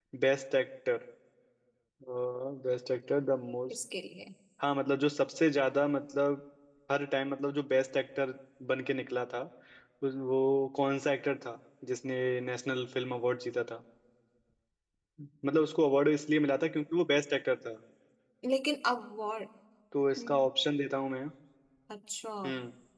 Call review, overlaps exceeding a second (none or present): none